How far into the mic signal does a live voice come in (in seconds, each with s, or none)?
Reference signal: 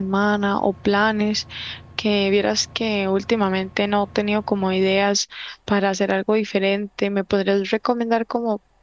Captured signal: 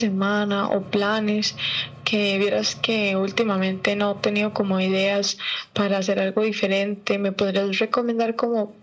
none